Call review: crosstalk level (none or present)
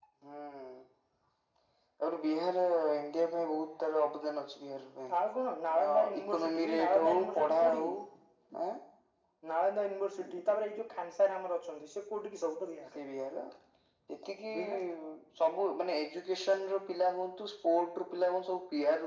present